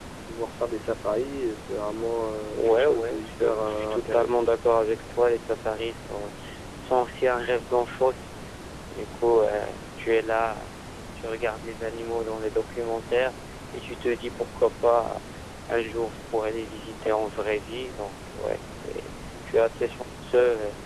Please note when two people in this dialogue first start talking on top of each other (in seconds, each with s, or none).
2.6 s